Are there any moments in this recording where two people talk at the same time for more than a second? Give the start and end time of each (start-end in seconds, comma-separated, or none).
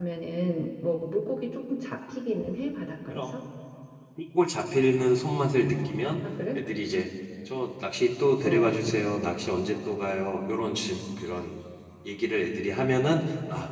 none